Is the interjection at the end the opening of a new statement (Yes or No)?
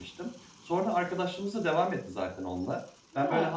No